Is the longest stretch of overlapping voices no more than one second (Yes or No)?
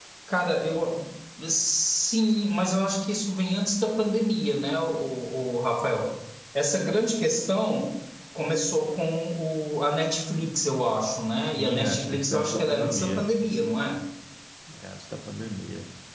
No